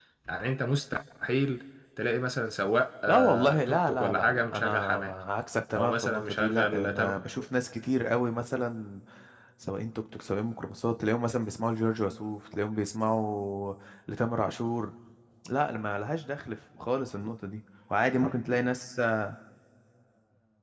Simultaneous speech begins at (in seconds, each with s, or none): 3.1 s